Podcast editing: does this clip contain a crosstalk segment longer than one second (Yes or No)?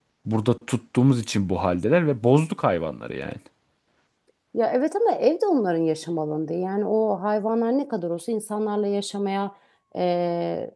No